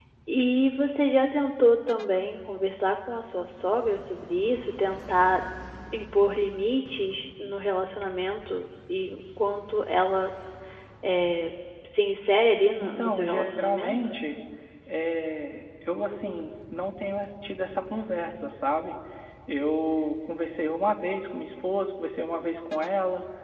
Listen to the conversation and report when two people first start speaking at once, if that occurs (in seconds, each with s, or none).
12.8 s